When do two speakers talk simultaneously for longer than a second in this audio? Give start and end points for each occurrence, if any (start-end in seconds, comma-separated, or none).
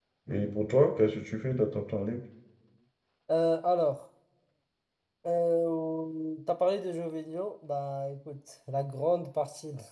none